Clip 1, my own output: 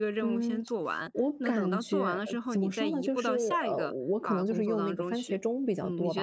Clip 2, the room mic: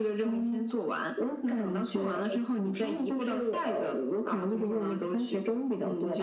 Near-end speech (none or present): none